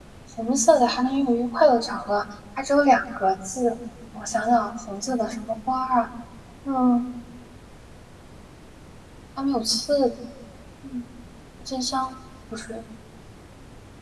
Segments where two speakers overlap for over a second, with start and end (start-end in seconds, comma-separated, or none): none